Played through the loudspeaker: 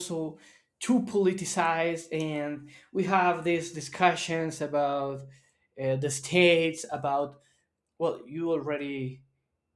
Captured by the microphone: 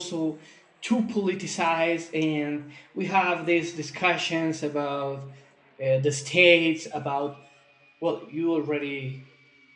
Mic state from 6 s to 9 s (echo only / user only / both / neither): echo only